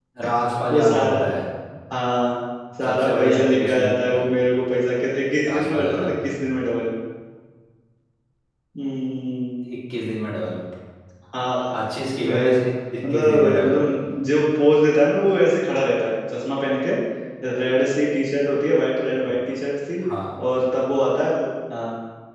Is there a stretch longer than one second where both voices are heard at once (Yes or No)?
Yes